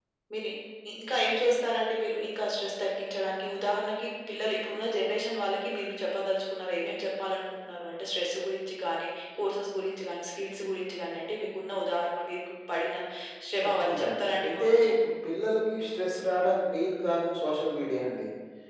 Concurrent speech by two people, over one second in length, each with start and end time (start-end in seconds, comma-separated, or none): 13.6-14.9